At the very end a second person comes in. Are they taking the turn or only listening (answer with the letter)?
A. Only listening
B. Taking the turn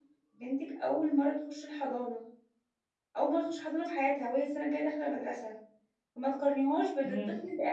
A